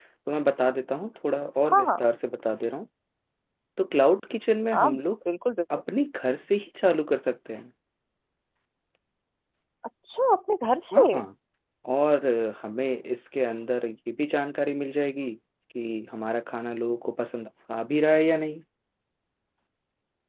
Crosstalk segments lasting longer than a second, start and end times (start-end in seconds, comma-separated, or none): none